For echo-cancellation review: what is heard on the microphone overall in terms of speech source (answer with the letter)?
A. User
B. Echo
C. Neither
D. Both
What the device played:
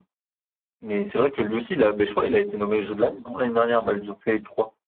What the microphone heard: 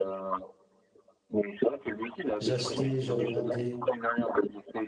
D